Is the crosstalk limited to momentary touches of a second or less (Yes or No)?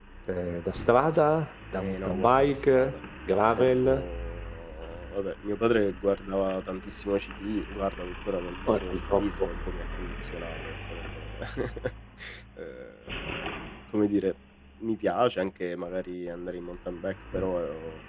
No